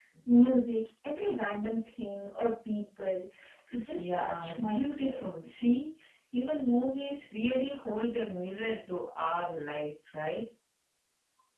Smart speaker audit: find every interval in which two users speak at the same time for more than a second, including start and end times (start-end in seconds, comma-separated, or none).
4.0-5.2